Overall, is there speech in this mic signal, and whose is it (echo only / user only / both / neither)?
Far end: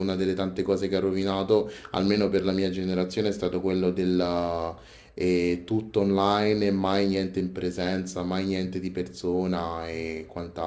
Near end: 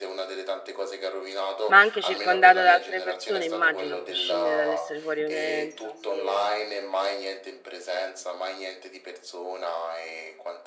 both